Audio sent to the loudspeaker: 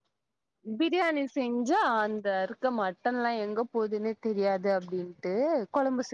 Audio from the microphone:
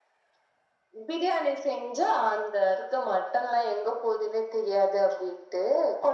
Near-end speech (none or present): none